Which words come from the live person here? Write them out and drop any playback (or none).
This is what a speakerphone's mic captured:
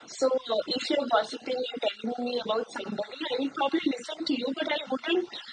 none